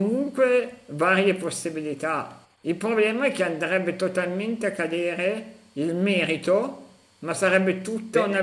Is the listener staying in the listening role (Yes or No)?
Yes